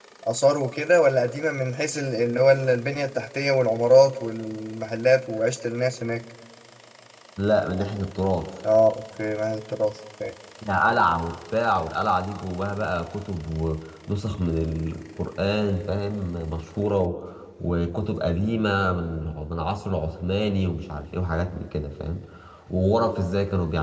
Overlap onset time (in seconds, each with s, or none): none